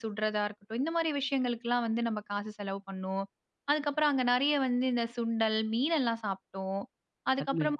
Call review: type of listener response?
listening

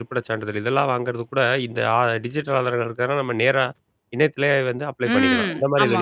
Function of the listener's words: taking over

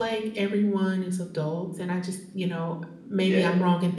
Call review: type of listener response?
listening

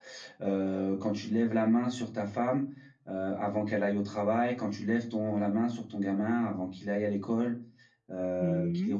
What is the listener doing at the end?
taking over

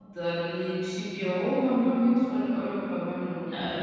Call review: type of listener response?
taking over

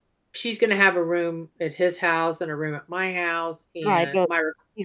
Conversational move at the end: taking over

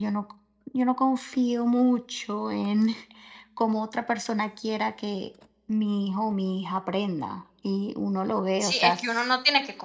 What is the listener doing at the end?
taking over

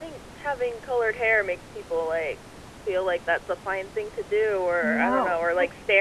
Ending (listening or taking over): listening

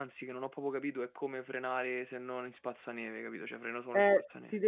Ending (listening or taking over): taking over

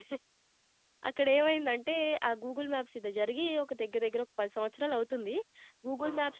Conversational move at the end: listening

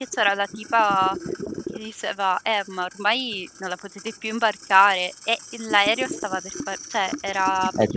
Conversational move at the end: taking over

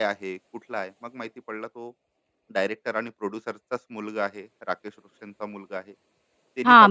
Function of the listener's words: taking over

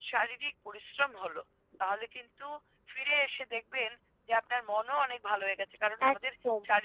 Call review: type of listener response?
listening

